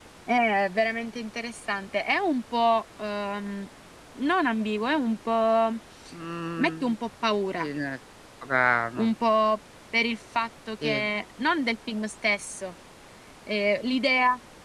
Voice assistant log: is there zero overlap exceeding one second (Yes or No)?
Yes